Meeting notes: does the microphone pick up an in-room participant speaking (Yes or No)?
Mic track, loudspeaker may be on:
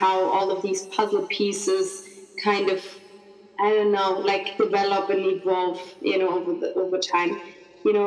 No